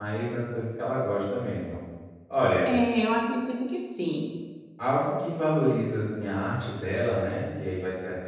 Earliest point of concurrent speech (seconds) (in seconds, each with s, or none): none